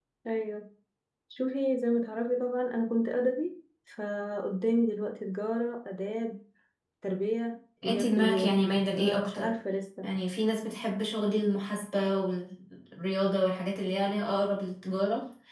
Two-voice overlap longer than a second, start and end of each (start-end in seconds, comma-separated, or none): 7.8-9.5